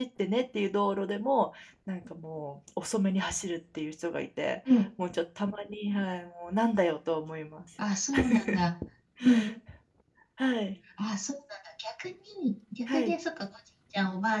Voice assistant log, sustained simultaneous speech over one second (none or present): none